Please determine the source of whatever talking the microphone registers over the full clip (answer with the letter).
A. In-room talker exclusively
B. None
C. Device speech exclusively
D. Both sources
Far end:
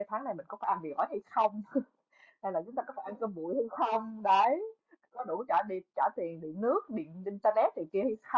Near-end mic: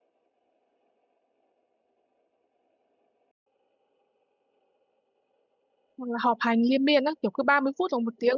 A